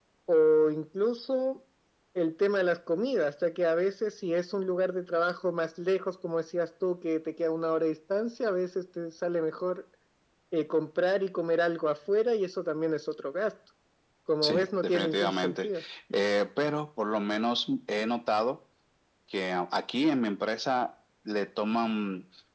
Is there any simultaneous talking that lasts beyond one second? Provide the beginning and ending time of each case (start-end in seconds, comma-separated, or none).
14.4-15.7